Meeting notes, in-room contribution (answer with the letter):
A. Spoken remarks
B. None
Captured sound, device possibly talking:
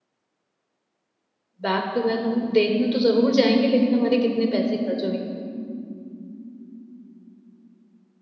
A